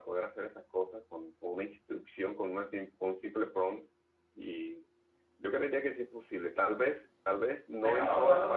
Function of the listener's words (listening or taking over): taking over